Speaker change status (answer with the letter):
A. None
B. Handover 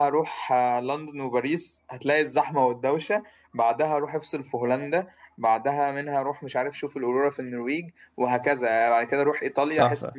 B